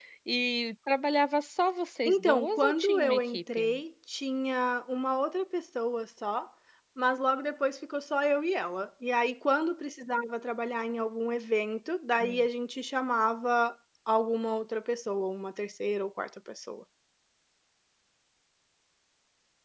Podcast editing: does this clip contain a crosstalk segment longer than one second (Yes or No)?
Yes